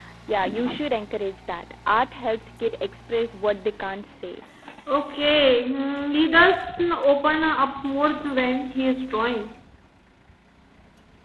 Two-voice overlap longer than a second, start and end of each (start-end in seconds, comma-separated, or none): none